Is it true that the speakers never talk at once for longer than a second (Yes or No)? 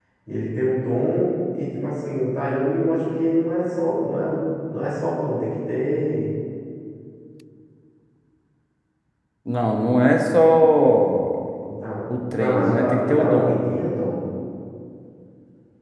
No